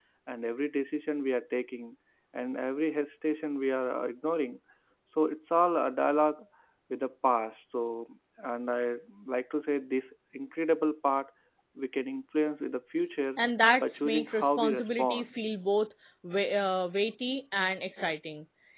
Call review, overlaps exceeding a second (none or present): present